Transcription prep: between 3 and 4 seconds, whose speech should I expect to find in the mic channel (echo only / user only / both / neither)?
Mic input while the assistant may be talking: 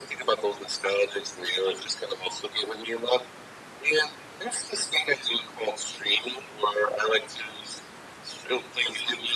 echo only